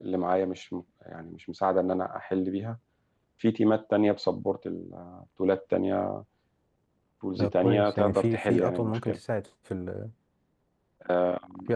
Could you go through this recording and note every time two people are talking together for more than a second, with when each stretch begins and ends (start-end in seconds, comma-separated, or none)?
7.4-9.2